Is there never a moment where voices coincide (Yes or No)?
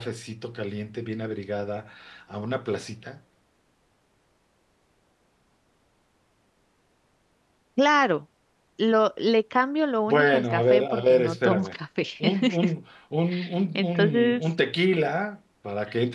No